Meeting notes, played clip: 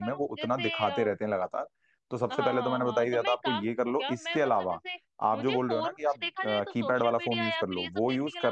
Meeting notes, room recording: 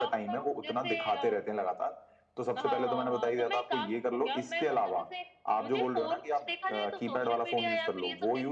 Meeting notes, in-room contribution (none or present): none